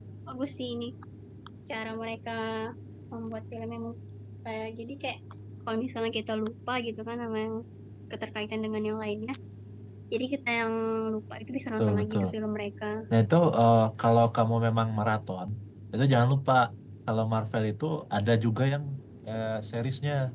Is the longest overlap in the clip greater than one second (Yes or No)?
No